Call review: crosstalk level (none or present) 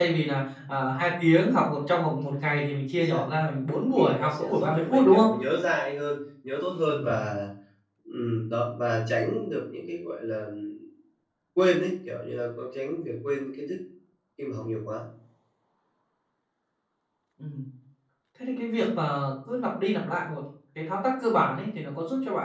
present